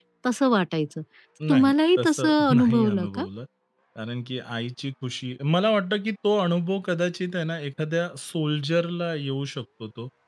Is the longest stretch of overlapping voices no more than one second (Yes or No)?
No